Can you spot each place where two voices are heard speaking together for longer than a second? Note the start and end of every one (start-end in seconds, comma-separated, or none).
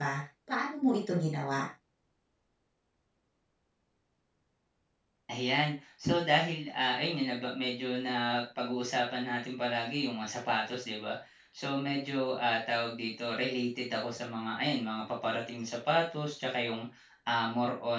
none